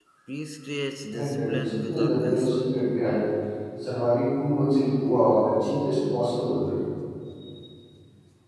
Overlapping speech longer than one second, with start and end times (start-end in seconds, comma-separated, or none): 1.1-2.7